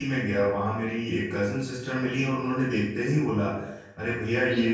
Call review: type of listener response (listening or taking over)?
listening